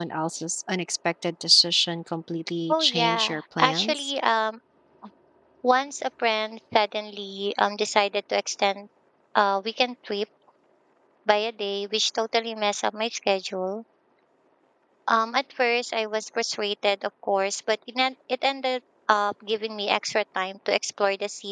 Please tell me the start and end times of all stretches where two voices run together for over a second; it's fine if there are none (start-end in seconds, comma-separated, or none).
2.7-4.1